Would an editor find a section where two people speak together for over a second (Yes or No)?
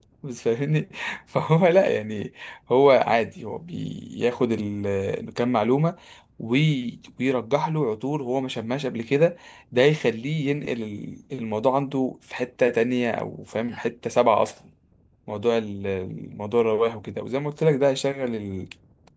No